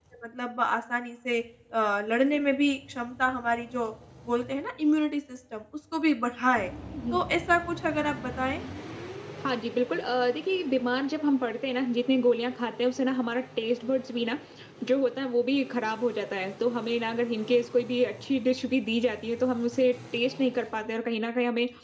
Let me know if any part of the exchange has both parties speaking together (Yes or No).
No